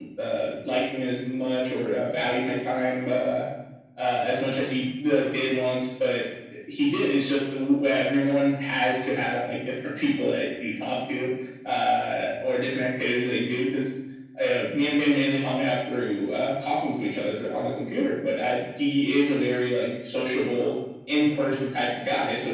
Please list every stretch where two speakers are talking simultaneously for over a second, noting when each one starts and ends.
none

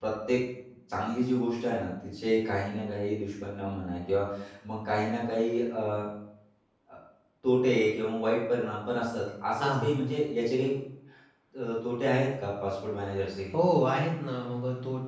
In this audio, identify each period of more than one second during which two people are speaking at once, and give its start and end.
none

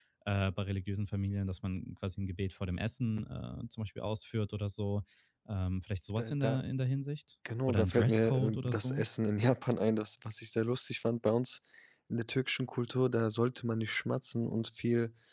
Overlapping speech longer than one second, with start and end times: 7.7-9.0

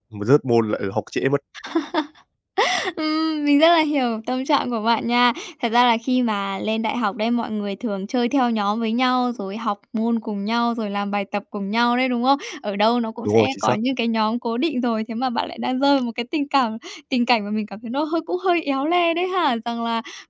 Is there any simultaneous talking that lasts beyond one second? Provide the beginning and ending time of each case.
none

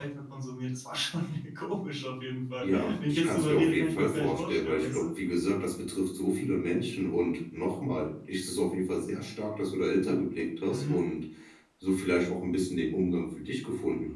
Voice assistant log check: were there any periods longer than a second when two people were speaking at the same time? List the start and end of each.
2.6-5.1

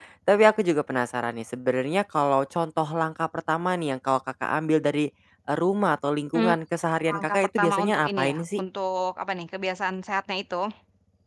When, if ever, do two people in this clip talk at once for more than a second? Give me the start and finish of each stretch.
7.1-8.6

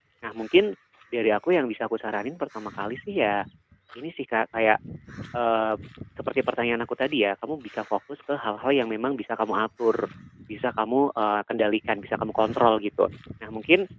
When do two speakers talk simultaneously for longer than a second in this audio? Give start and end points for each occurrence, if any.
none

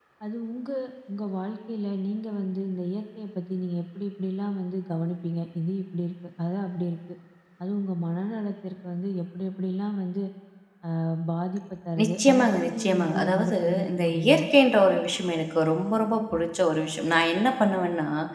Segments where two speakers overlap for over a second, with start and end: 12.0-14.4

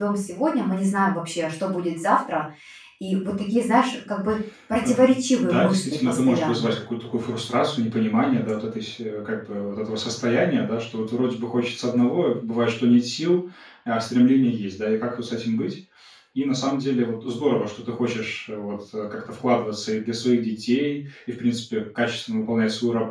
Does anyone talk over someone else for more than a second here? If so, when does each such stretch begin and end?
5.4-6.7

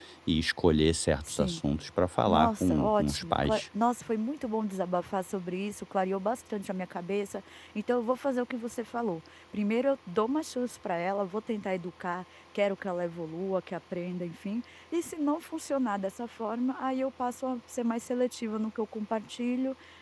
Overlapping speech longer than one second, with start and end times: 2.3-3.6

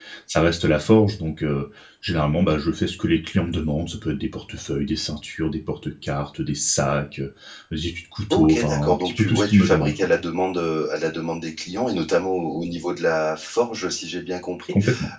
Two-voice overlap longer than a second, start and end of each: 8.3-10.1

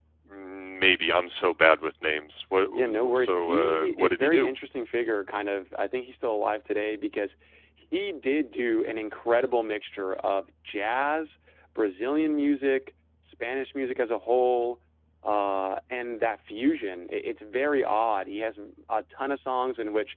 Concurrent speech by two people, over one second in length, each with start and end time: 2.8-4.5

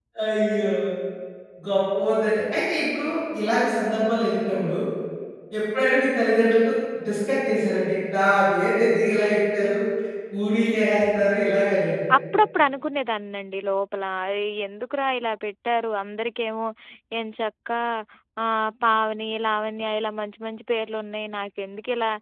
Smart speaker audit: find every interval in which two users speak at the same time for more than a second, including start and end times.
none

